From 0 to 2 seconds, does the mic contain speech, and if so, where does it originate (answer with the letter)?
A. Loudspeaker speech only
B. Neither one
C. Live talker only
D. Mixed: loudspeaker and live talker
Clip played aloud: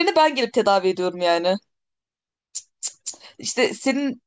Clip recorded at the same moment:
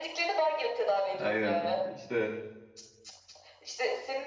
D